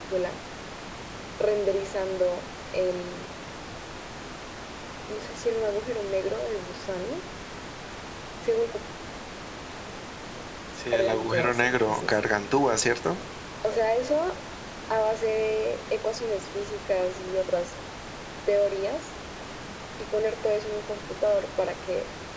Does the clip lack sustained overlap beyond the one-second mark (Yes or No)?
No